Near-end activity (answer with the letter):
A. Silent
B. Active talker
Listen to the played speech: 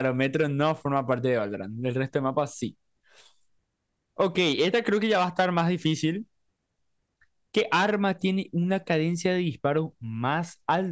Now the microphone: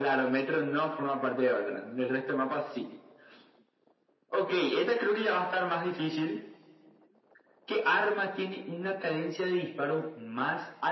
A